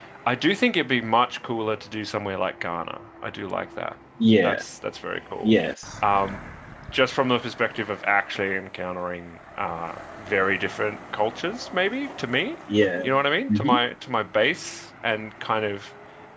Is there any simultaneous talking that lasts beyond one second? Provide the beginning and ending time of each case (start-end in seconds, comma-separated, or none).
none